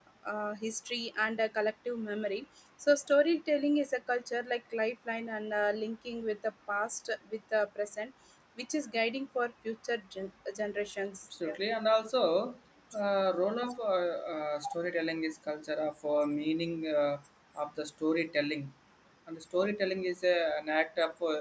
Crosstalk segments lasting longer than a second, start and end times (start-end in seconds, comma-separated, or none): none